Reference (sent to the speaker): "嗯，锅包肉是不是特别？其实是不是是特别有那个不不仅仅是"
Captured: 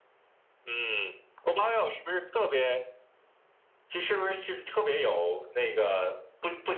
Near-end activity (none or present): none